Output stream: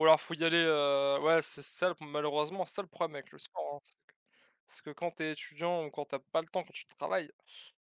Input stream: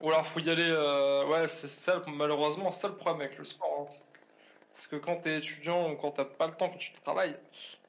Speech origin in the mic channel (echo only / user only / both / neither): echo only